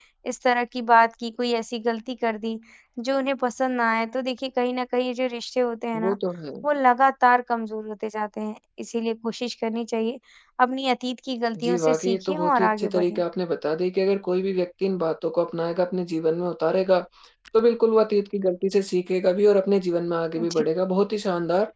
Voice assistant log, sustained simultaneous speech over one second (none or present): present